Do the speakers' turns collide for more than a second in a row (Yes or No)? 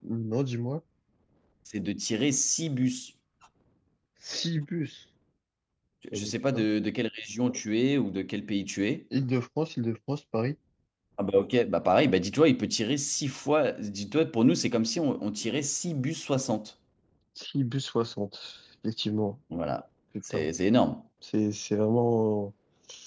No